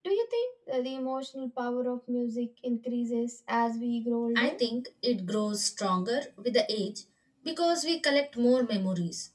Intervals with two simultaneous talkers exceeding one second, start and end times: none

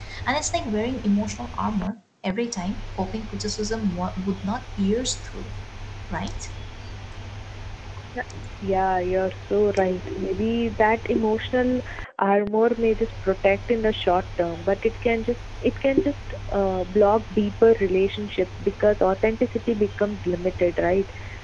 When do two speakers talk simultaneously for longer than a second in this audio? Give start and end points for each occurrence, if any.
none

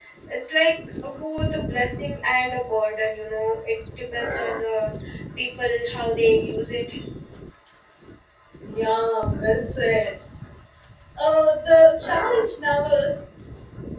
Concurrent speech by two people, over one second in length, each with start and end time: none

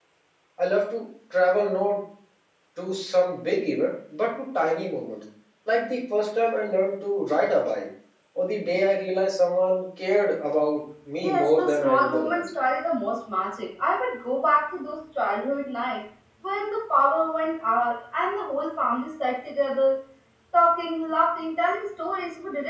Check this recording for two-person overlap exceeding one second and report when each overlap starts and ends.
11.2-12.5

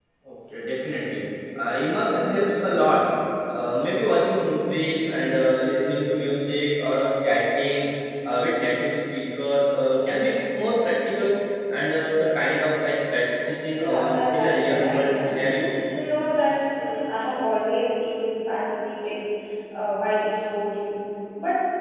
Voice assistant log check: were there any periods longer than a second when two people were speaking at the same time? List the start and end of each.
13.7-15.4

